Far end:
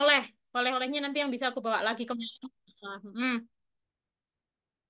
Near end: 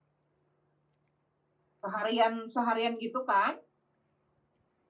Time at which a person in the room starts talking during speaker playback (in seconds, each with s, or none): 1.8 s